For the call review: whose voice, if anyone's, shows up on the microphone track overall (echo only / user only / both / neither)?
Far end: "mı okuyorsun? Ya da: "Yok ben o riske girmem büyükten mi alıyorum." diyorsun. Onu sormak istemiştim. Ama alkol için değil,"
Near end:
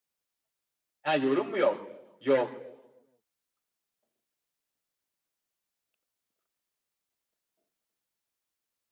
user only